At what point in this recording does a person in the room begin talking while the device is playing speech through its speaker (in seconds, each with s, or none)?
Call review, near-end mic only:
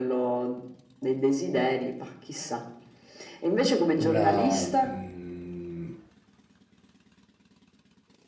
4.0 s